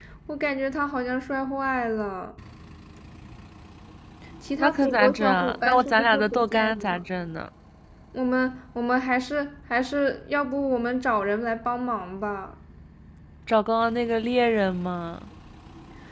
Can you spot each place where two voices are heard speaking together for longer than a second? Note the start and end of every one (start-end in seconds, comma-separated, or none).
4.6-7.0